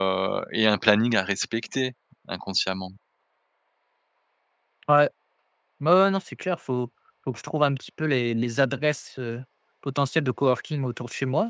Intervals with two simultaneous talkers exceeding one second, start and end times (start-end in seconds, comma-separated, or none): none